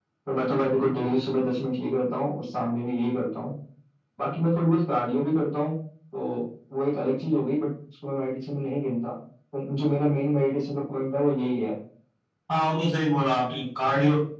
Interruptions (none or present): none